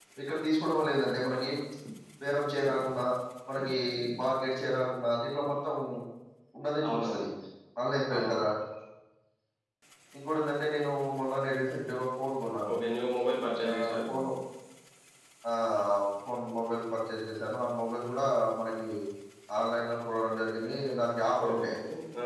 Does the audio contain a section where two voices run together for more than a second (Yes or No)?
No